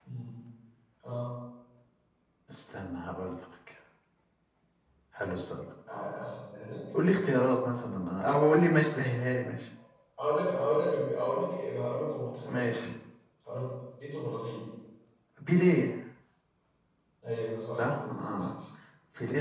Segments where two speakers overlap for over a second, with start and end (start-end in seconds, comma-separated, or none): none